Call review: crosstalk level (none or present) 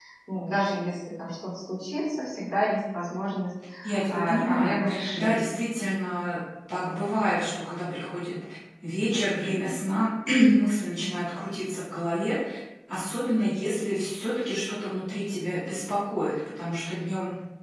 present